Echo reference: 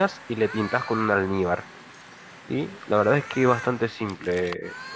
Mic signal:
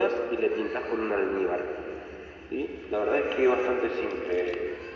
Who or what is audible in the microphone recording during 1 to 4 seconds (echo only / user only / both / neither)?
echo only